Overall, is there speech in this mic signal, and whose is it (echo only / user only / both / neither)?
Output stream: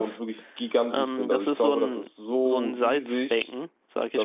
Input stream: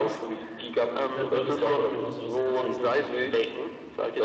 both